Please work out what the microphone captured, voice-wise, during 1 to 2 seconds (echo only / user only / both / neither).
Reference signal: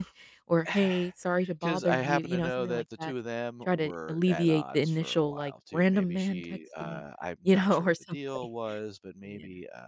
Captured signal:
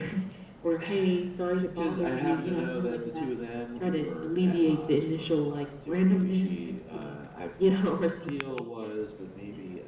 echo only